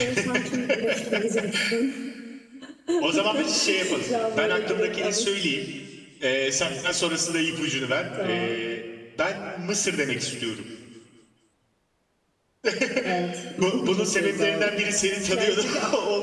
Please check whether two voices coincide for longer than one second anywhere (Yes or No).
Yes